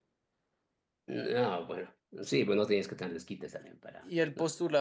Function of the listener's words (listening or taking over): taking over